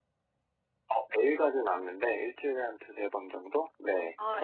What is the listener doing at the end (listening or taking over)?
taking over